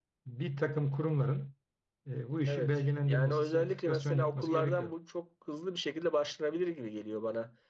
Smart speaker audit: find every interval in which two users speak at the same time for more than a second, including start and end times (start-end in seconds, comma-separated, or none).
2.5-4.9